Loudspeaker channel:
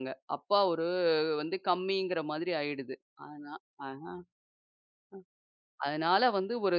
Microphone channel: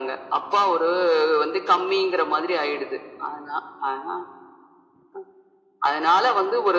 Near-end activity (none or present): none